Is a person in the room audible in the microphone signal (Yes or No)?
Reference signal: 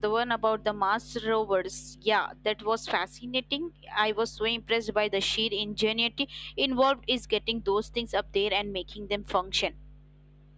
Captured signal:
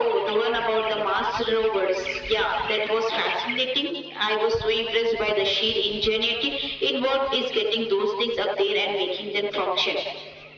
No